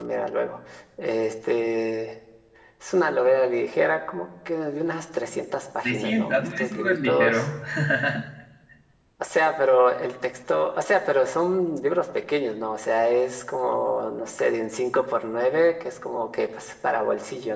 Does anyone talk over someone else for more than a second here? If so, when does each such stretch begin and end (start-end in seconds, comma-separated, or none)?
5.8-7.5